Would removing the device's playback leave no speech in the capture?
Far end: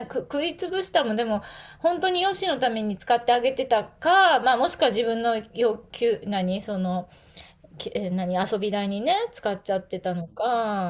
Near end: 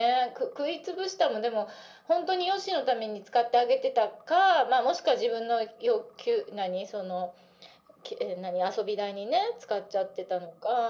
Yes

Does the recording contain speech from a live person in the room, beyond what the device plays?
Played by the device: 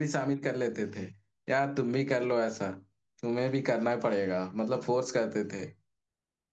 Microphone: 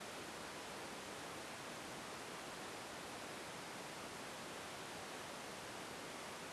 No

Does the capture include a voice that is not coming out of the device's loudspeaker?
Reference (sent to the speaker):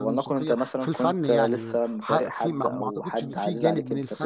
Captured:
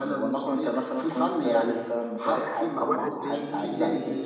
Yes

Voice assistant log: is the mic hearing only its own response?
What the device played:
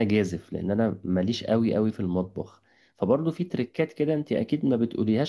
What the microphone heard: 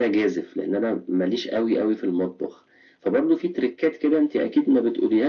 Yes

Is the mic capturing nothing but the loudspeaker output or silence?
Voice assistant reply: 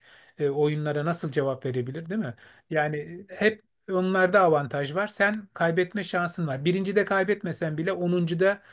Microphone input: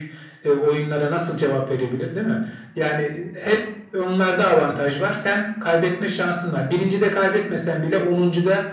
Yes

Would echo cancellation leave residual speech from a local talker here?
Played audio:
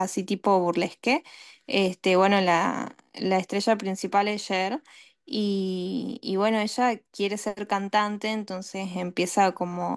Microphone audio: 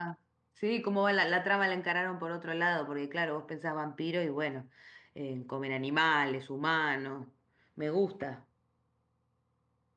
Yes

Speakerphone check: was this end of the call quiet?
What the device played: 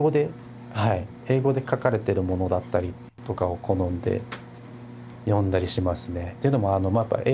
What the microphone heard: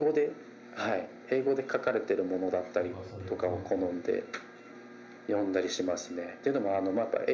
No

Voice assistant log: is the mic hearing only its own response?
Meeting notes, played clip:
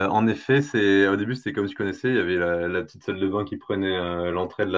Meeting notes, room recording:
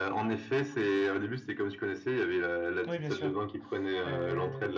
No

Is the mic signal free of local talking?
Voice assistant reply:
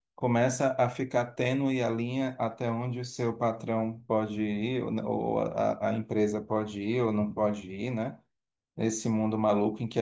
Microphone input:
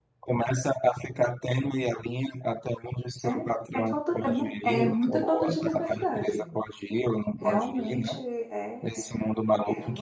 No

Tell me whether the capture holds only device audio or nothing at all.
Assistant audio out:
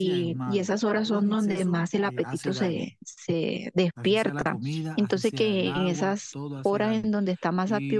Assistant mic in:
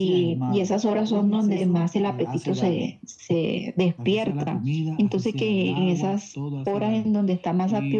Yes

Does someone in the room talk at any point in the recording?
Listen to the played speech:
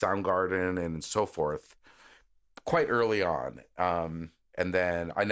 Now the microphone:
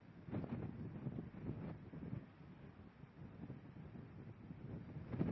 No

